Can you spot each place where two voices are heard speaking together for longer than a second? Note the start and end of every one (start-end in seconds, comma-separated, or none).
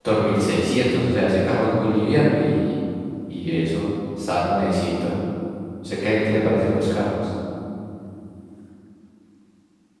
none